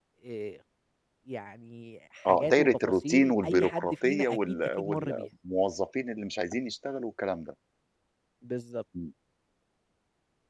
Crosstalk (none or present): present